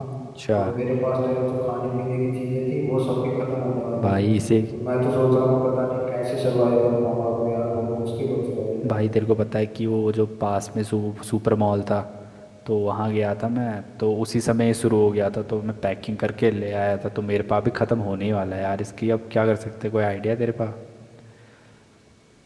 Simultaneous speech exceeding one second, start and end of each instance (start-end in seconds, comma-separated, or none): none